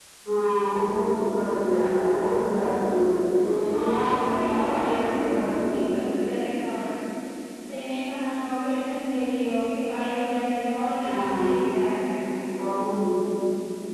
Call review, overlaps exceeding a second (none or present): present